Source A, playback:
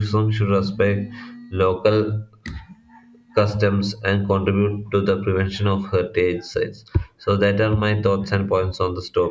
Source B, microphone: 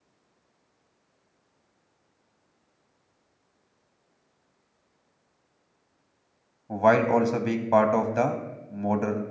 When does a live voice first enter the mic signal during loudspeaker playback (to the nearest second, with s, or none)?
7 s